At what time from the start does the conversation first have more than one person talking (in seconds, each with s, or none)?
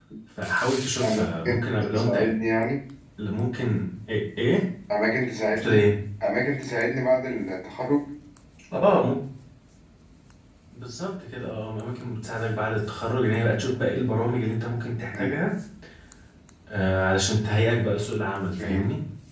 1.0 s